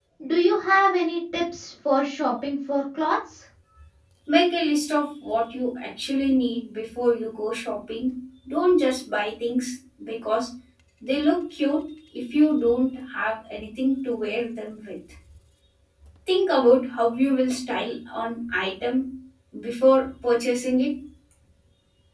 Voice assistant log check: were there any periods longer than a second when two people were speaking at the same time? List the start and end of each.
none

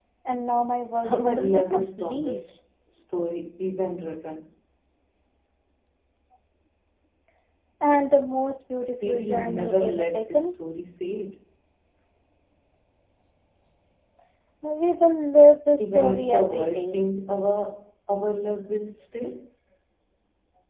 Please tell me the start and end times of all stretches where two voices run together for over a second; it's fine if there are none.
1.1-2.4, 9.0-10.5, 15.8-17.0

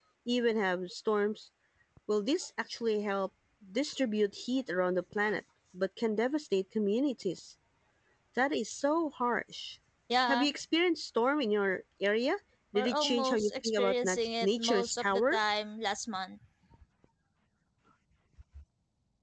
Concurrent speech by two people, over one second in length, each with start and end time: 12.8-15.4

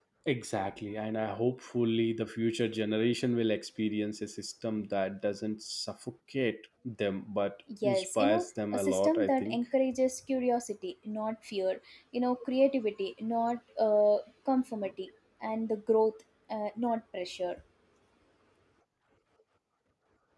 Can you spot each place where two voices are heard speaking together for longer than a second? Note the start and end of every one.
7.8-9.6

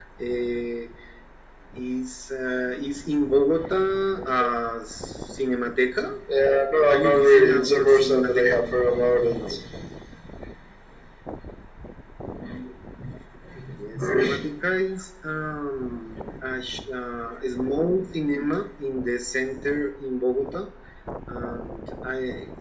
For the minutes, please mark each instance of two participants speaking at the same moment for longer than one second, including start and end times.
6.9-8.6

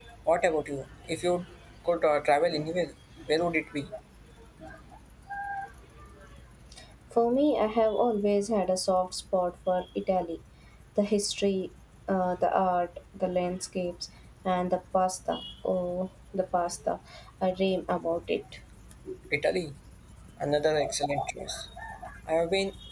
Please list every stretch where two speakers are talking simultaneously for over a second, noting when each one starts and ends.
none

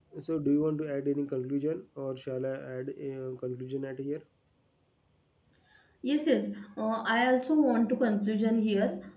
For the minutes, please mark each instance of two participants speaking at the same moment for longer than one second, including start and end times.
none

